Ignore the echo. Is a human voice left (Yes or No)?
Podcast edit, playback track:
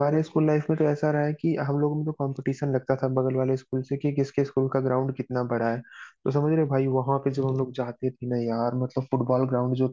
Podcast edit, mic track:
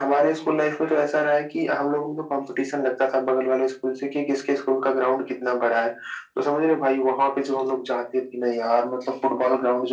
No